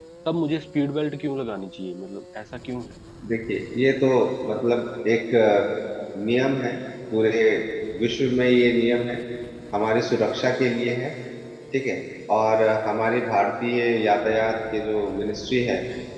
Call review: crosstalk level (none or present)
none